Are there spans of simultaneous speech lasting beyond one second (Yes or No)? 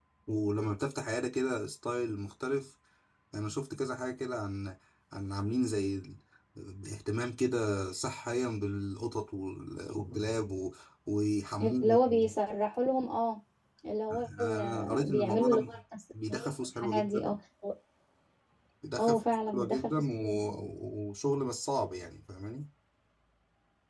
Yes